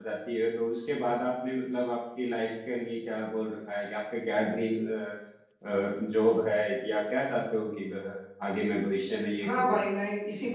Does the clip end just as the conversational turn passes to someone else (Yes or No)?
Yes